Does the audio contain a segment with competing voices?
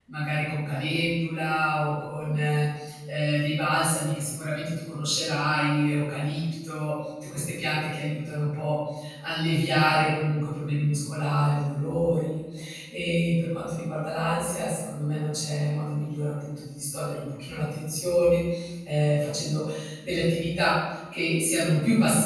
No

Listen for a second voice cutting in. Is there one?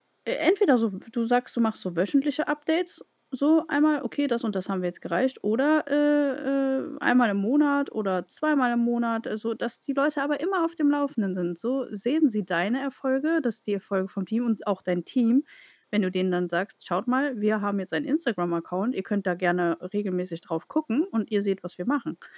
No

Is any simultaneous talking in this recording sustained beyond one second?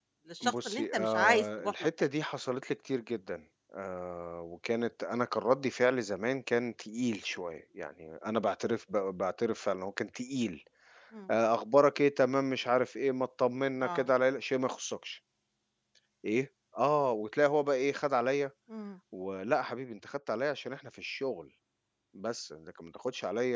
Yes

